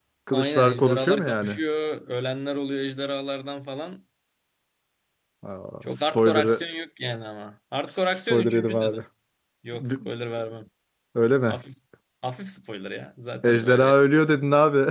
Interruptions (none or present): present